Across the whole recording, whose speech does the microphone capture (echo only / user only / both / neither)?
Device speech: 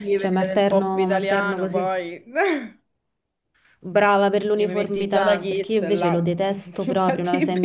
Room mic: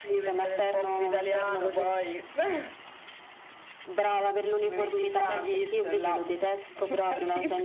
echo only